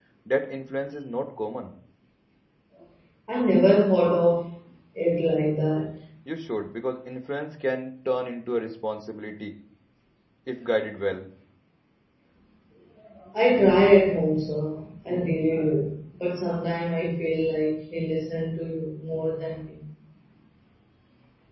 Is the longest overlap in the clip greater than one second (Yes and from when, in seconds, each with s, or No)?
No